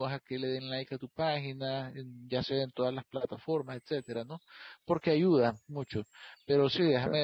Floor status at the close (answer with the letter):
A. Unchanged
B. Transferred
A